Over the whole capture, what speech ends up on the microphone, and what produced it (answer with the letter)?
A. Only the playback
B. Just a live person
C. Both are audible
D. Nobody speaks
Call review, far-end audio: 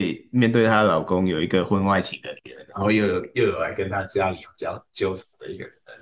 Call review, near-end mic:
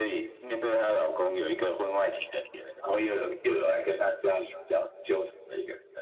A